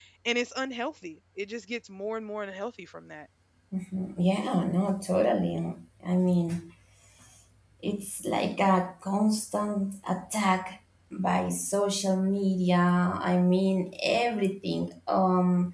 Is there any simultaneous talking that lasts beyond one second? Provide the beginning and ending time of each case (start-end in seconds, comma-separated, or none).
none